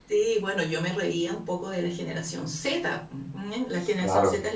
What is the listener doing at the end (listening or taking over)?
listening